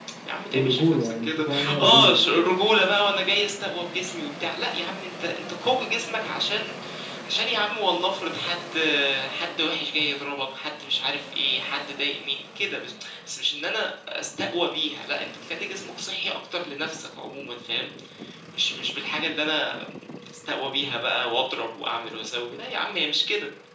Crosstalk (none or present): present